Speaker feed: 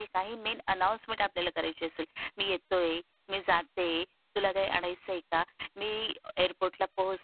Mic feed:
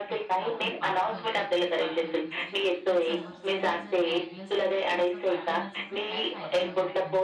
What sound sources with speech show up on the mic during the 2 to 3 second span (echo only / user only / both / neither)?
both